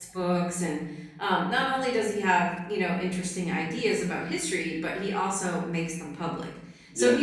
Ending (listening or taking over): listening